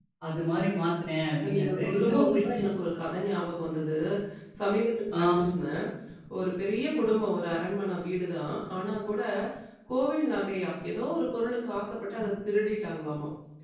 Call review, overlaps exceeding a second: present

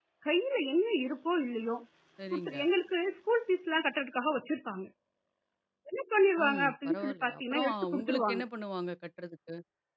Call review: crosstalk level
present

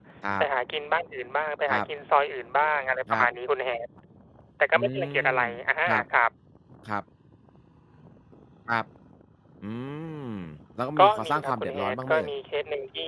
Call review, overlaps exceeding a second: present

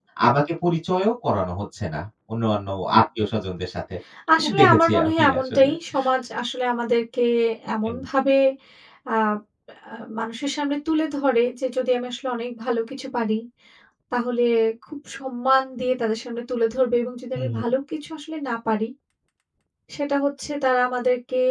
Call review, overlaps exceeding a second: present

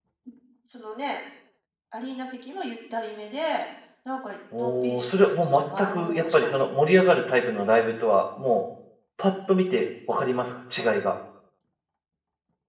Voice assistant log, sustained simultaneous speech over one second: present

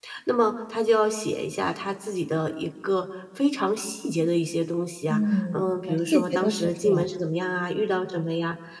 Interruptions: present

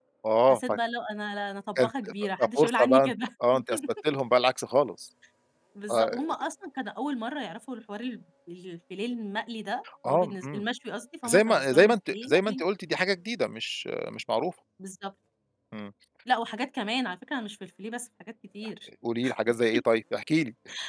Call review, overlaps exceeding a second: present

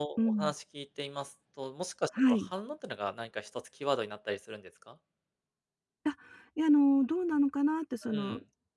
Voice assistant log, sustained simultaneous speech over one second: none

